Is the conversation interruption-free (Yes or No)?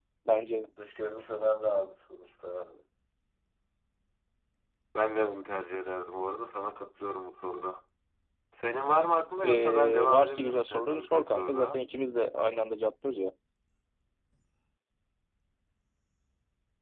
No